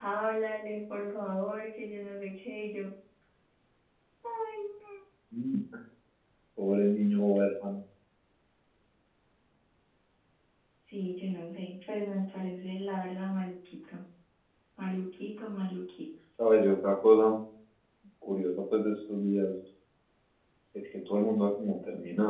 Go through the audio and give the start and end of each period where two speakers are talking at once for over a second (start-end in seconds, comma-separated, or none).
none